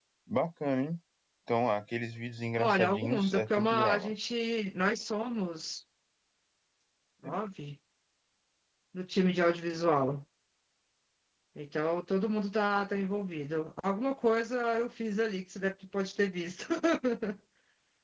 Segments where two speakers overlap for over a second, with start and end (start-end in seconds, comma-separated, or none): 2.6-4.1